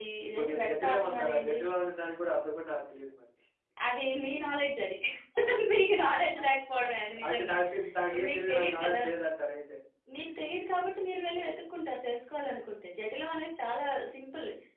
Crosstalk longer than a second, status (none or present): present